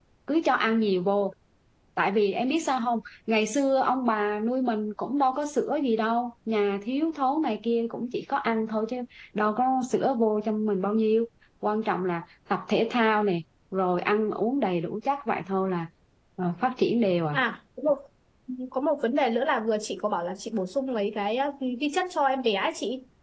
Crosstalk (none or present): none